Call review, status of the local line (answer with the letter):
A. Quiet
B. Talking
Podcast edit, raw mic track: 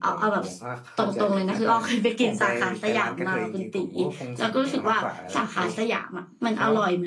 A